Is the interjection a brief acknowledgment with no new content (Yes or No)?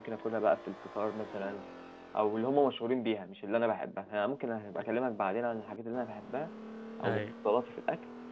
Yes